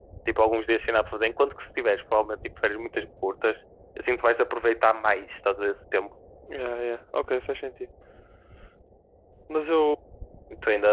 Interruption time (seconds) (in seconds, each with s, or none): none